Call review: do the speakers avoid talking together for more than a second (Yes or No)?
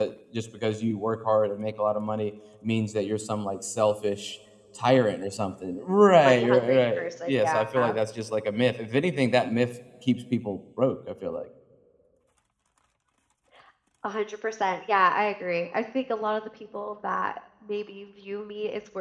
No